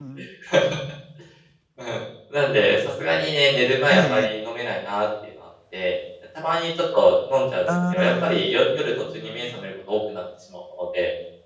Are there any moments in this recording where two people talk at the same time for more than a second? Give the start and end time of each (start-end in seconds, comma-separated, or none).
7.7-9.7